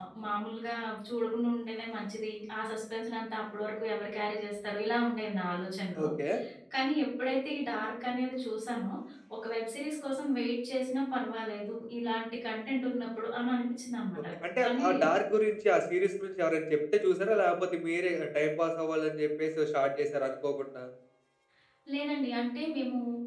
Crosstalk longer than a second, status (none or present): none